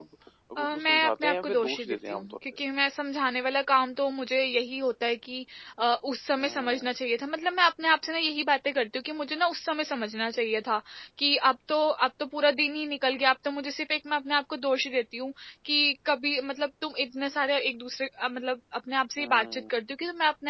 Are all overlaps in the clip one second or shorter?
No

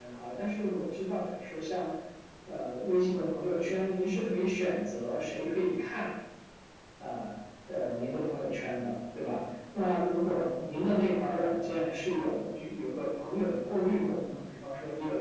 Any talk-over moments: No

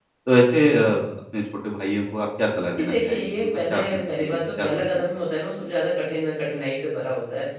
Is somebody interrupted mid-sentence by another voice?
Yes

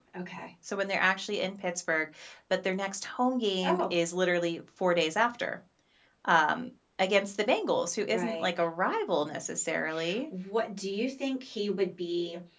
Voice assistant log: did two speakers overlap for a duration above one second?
No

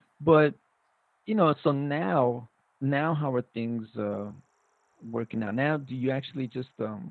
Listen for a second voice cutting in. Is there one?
No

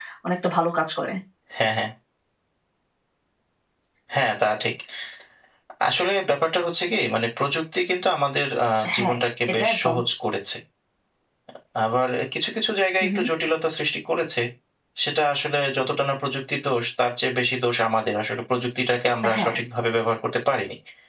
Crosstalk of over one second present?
No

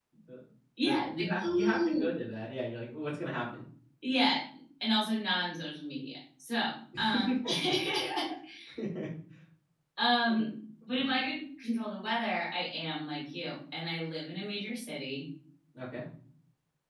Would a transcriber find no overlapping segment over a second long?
No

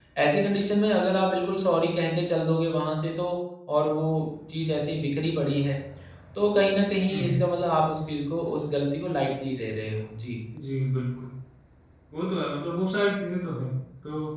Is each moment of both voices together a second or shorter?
Yes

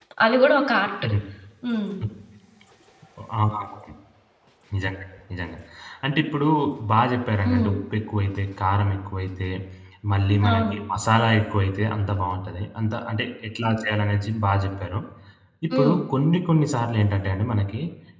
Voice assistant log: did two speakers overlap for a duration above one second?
No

